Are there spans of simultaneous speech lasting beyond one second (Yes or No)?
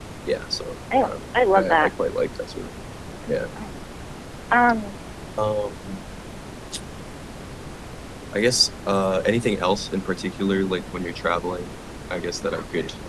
No